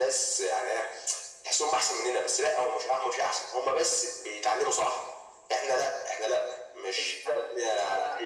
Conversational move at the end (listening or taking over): taking over